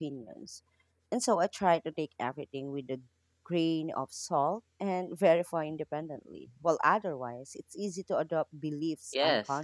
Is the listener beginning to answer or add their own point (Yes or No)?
Yes